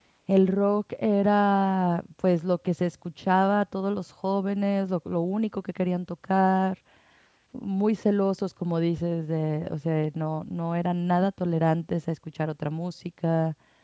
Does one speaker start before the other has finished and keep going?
No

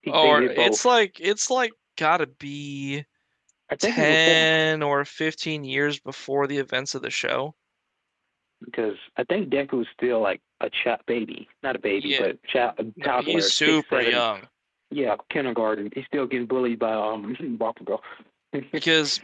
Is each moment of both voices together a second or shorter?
No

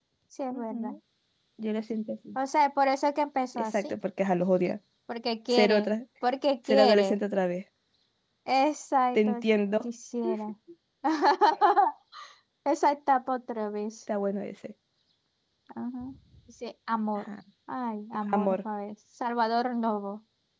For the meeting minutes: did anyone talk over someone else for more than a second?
No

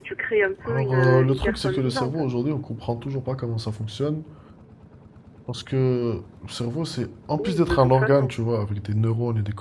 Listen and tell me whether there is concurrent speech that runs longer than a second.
Yes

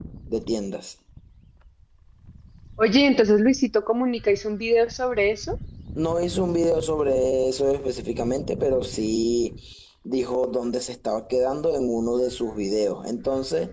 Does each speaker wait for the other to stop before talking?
Yes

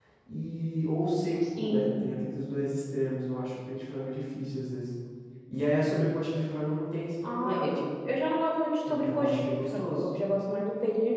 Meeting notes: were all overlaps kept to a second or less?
No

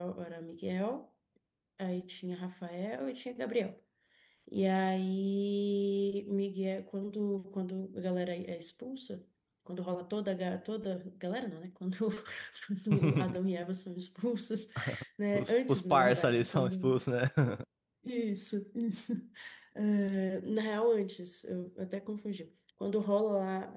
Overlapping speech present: Yes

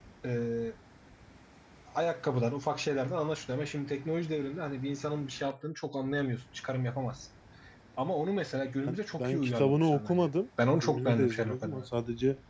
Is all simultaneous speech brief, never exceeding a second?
No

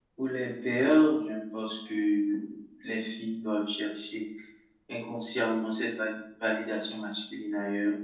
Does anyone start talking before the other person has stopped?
No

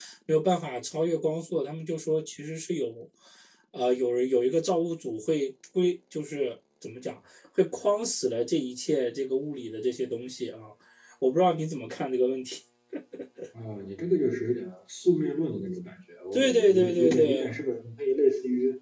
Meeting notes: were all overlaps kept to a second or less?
No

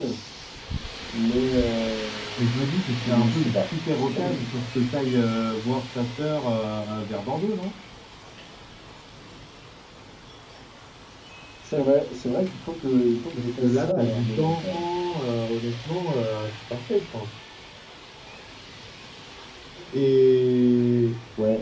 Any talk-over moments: Yes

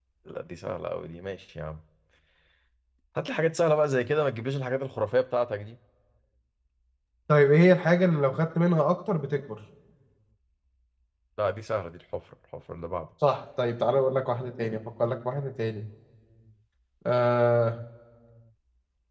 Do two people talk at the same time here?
No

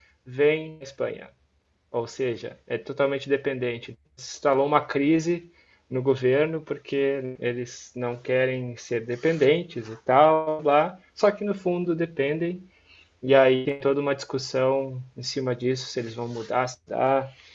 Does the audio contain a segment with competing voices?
No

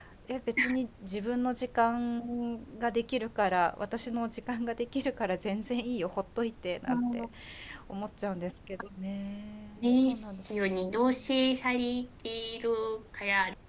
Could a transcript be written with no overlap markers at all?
No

